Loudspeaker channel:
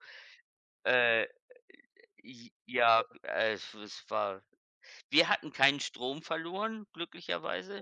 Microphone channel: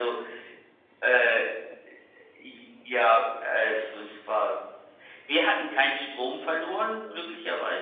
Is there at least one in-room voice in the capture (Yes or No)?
No